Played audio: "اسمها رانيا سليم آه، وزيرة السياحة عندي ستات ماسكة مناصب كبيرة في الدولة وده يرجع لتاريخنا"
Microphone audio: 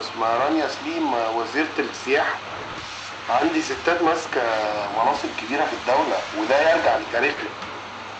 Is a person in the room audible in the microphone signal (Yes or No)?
No